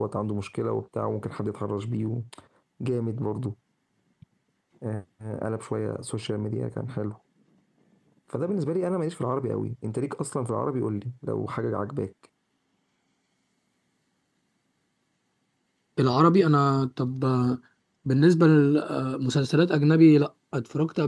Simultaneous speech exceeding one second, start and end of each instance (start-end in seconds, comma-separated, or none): none